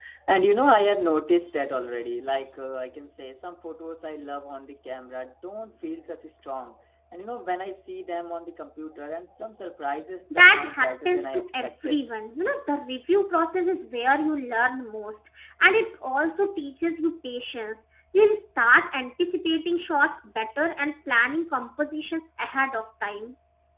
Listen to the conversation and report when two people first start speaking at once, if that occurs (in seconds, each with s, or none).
10.3 s